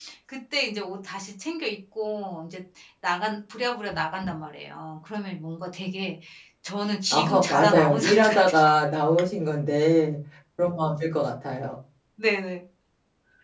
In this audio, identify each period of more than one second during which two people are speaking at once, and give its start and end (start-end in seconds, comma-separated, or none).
7.1-8.7